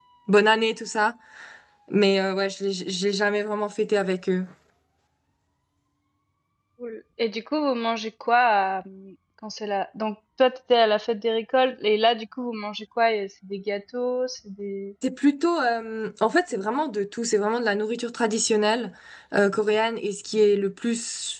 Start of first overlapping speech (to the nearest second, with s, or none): none